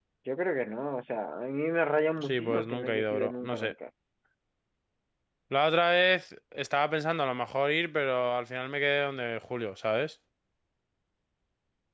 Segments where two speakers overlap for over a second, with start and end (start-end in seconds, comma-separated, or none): 2.3-3.7